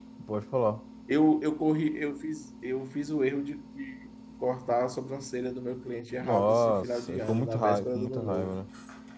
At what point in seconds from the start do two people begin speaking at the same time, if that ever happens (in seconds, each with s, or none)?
6.2 s